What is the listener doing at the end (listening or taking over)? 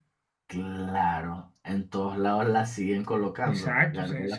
taking over